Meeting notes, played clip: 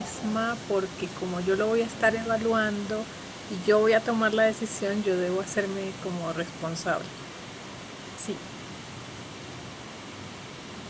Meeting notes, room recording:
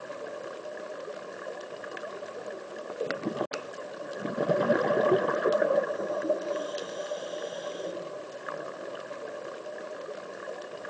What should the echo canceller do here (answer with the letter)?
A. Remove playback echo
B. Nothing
B